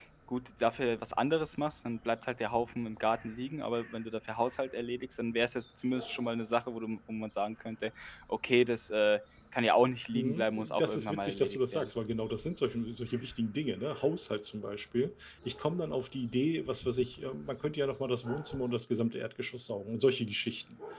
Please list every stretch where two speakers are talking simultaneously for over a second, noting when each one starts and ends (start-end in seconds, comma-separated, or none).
10.1-11.9